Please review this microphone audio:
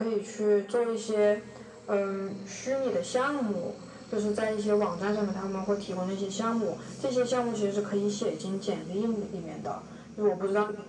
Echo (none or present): present